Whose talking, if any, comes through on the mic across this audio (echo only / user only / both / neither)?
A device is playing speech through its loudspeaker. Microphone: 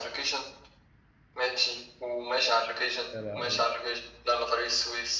both